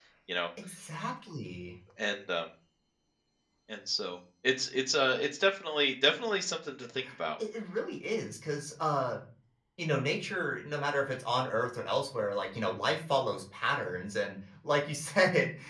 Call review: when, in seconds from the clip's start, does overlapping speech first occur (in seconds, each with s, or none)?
none